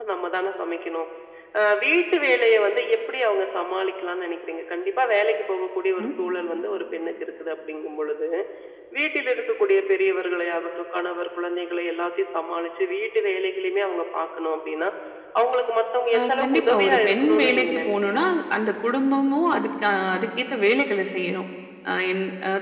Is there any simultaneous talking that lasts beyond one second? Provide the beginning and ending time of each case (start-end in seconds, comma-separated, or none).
16.2-18.2